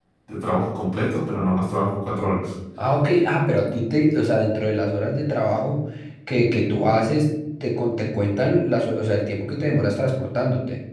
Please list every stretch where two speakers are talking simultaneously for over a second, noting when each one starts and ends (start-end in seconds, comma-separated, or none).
none